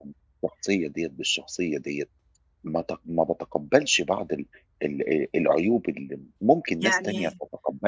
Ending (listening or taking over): listening